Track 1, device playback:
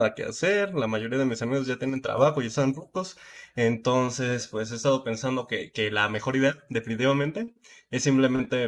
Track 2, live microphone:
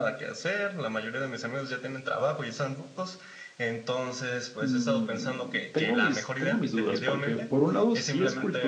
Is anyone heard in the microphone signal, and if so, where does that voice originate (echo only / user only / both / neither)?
both